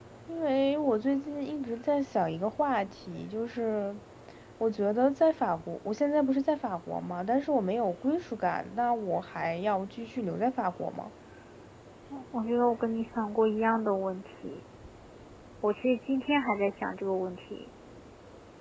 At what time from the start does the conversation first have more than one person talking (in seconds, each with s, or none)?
none